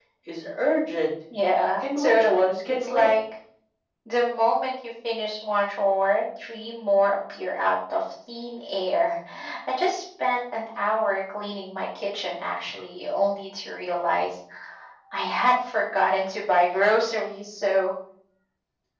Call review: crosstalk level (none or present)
present